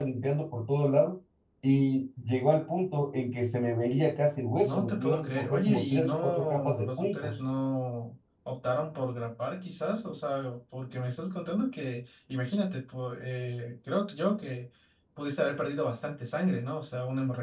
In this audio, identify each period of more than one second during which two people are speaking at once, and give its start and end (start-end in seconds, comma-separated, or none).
4.6-7.4